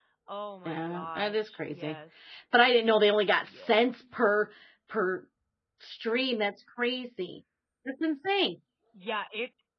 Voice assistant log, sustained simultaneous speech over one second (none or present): present